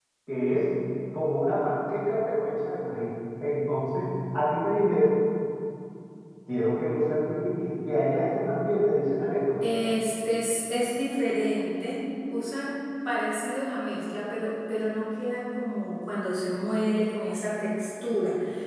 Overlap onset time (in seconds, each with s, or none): none